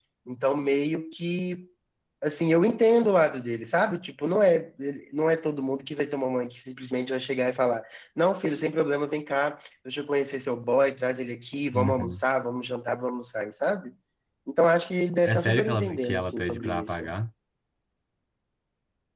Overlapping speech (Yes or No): Yes